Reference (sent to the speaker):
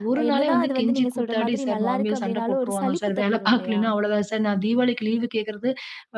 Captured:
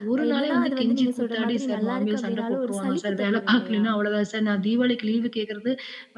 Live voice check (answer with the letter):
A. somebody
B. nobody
B